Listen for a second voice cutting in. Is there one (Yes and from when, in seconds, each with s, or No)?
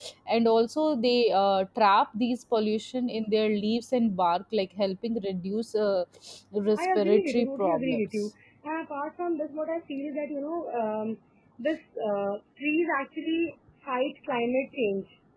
Yes, from 6.8 s